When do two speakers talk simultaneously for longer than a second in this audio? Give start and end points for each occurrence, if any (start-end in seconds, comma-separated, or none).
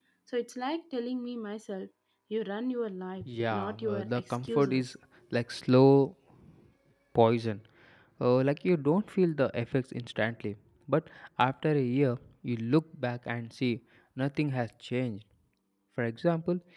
3.5-4.8